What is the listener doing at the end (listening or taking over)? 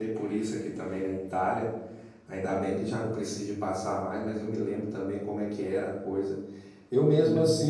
listening